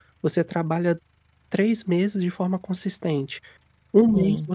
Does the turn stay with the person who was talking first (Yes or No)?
Yes